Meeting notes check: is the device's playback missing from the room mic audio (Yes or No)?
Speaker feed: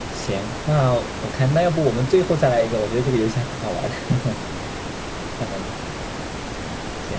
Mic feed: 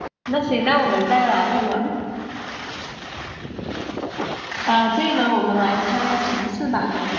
Yes